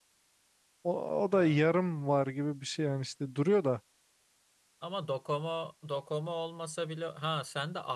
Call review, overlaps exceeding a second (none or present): none